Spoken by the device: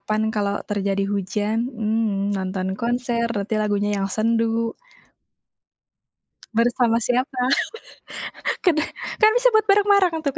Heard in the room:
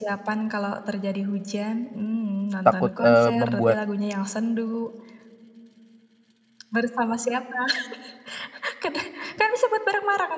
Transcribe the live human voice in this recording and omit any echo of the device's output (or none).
takut, eee, membuat,